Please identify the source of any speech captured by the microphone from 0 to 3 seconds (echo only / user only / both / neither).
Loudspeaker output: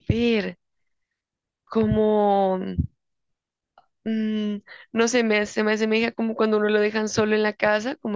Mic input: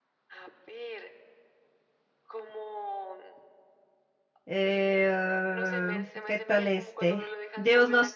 echo only